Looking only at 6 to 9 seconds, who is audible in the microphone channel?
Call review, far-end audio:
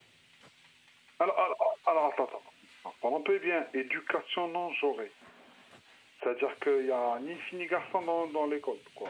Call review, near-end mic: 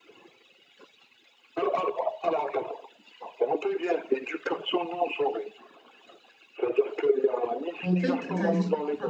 both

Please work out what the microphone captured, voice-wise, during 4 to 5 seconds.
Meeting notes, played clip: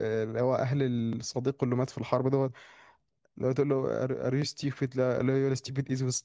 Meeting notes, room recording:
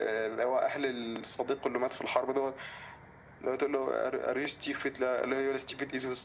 echo only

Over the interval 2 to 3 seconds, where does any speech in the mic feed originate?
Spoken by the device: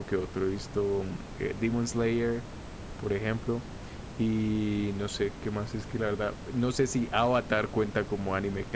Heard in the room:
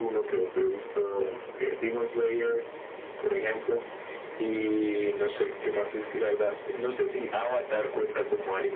echo only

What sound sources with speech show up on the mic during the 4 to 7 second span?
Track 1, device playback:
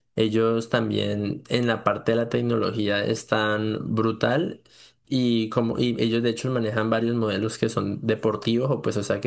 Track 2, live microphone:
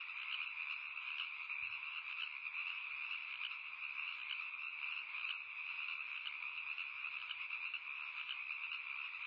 neither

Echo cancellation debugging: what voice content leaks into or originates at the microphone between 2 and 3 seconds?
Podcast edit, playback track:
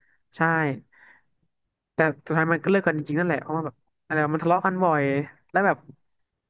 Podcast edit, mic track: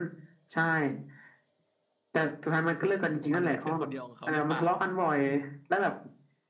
echo only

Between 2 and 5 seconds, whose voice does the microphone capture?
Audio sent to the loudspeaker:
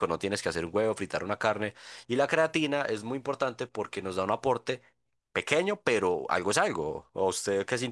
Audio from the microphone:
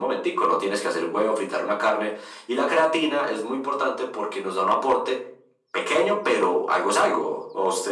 echo only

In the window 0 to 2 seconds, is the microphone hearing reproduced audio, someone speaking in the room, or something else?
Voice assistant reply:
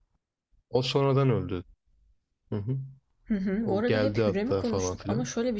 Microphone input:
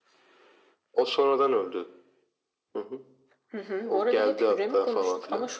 echo only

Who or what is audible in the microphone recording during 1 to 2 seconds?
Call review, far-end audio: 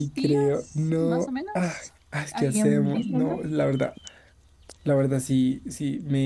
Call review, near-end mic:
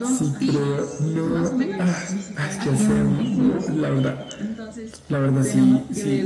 both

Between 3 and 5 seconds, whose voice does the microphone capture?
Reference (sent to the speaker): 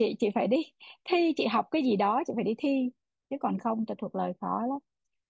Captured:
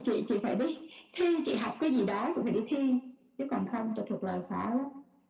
echo only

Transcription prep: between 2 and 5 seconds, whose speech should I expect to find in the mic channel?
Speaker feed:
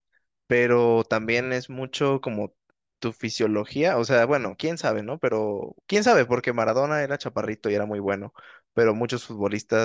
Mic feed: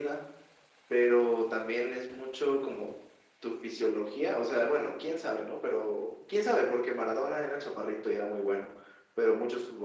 echo only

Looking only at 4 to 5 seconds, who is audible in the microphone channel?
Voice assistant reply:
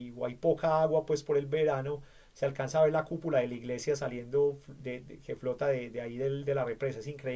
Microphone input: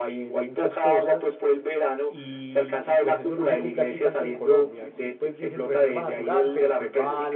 both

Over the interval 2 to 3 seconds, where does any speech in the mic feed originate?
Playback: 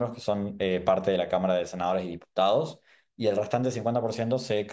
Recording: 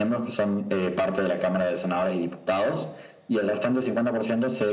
echo only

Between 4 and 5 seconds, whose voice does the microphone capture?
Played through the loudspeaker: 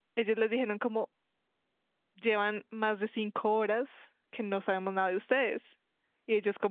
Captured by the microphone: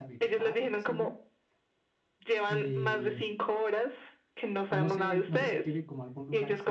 both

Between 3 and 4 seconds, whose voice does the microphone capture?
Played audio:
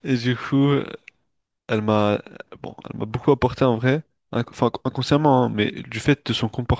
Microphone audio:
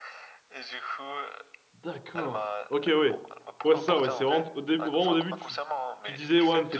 both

